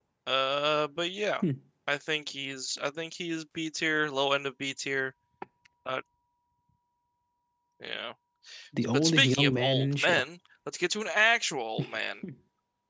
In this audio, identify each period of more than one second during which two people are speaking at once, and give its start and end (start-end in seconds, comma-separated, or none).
8.9-10.2